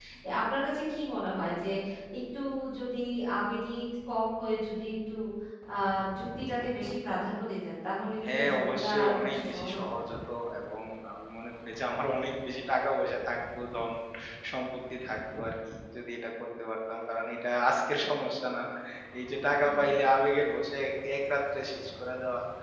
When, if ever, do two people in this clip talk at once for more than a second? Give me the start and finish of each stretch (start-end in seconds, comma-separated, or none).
8.3-9.9